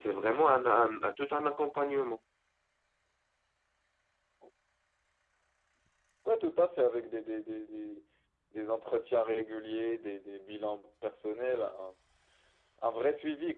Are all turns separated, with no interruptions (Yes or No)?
Yes